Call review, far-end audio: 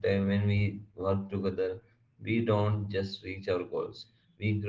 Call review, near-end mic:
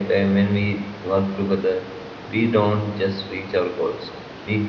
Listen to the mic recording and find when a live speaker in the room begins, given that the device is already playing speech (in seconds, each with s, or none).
none